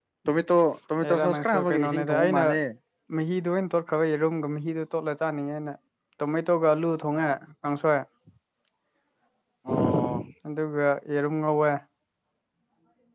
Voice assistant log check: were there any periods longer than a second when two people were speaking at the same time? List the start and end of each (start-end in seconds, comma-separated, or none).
1.0-2.4